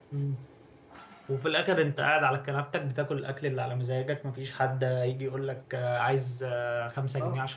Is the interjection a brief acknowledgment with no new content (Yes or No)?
No